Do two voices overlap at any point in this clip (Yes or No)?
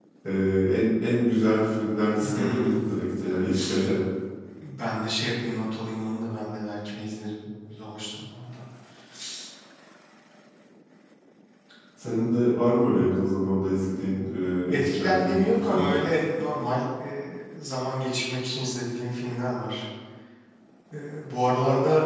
Yes